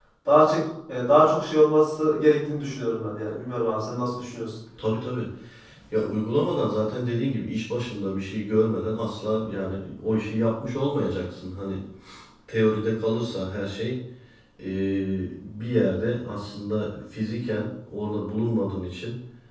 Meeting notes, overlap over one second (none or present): none